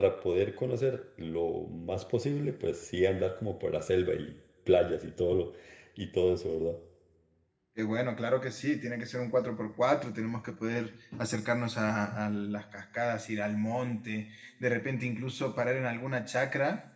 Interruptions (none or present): none